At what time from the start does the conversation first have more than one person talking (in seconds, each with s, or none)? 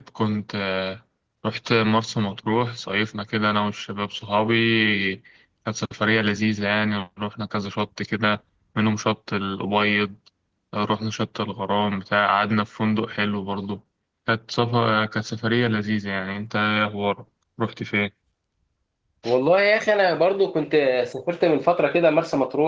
none